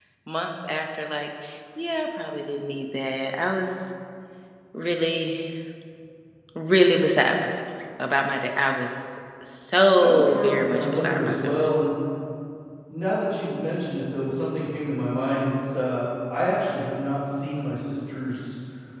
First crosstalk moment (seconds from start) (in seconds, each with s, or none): 9.9 s